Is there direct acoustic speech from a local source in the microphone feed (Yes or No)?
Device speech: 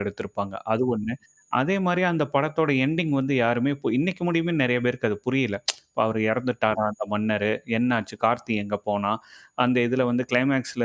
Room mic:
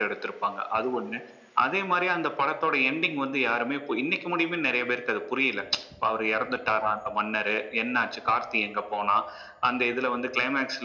No